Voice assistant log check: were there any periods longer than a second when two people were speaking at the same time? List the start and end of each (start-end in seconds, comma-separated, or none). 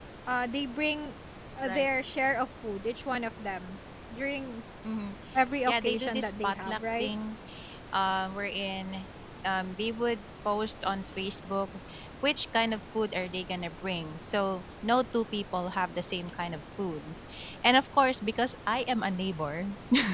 5.7-7.1